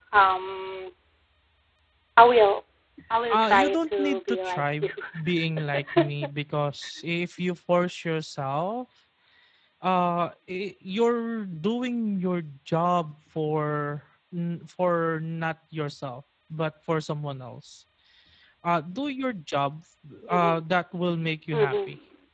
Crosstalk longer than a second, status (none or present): present